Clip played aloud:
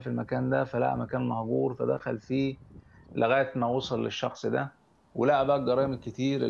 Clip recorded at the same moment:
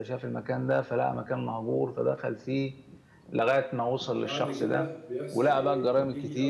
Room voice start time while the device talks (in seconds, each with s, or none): 4.2 s